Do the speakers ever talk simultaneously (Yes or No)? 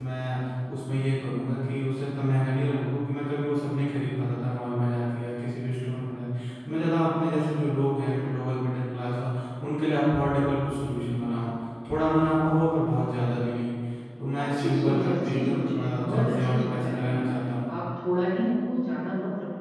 Yes